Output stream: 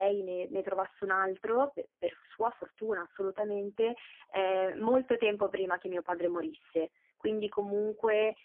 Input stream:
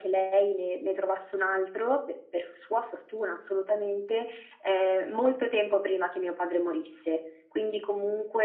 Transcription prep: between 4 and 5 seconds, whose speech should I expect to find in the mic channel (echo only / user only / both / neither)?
echo only